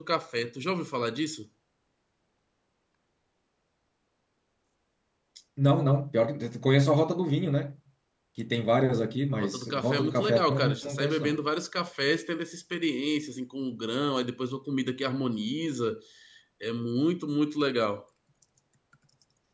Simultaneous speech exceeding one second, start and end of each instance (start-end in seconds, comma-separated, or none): 9.3-11.4